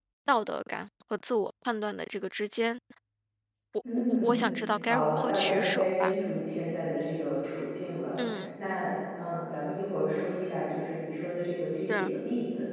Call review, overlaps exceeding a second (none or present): present